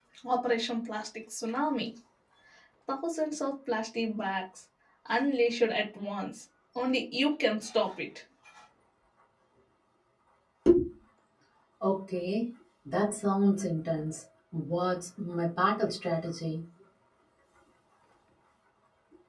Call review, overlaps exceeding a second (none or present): none